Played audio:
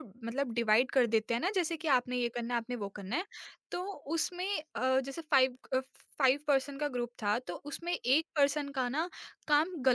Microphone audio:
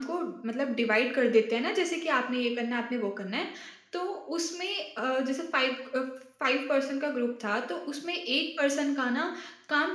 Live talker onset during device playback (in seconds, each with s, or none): none